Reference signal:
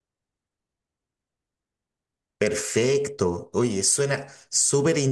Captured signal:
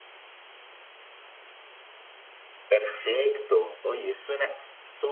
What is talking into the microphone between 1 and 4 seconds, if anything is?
echo only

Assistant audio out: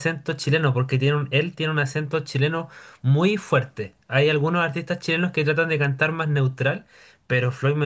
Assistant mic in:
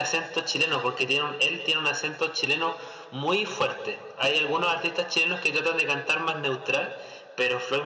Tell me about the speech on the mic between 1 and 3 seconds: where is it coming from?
echo only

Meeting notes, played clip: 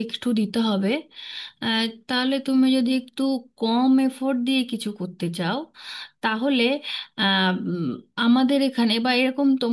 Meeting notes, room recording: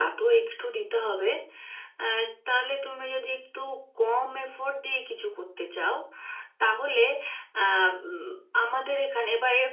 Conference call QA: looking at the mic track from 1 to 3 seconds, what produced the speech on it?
echo only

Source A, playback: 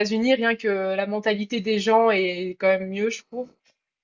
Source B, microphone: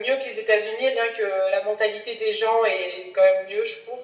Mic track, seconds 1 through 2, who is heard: echo only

